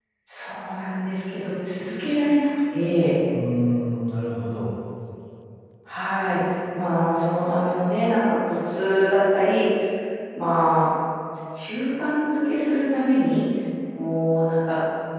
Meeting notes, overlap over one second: none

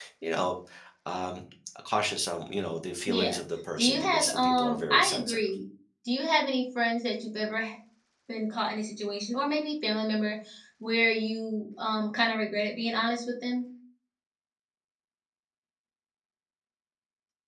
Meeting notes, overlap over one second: present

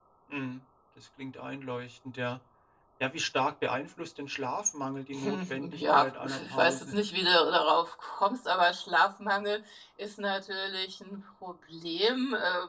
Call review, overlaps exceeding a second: present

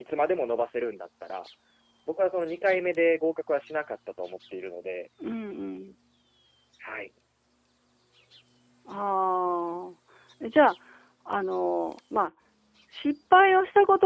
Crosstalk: none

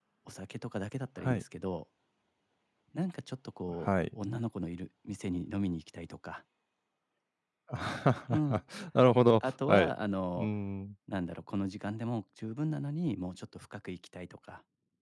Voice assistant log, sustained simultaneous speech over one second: none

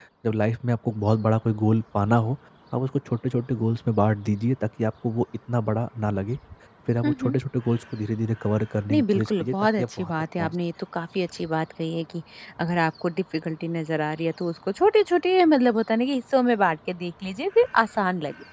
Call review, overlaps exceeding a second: present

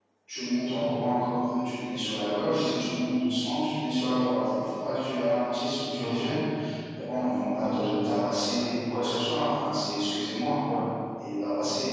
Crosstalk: present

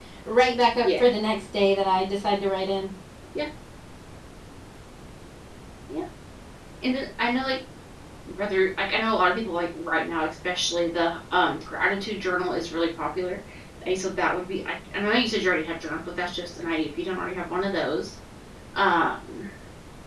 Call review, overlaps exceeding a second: none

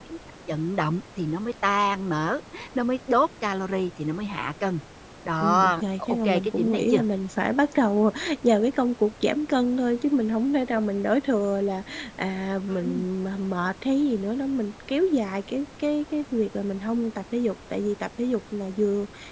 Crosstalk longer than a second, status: present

